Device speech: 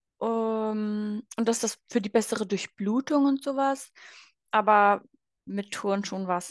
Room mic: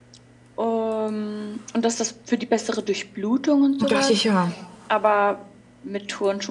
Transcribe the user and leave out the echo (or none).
Und dachte ich, ja,